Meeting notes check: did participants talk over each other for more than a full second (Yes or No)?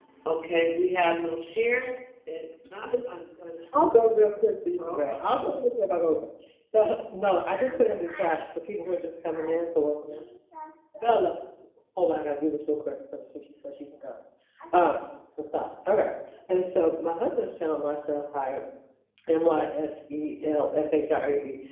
No